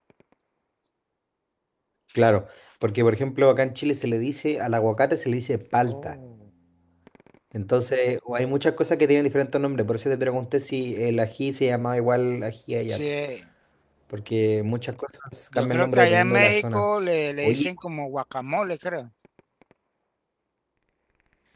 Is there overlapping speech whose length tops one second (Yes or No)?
Yes